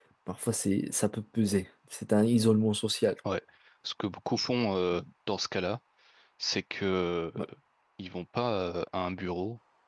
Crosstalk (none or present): none